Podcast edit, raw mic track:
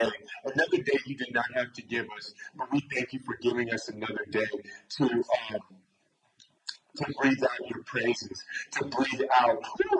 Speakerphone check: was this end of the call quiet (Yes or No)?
Yes